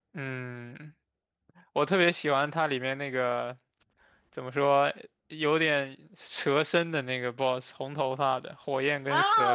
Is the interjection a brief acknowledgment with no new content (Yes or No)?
No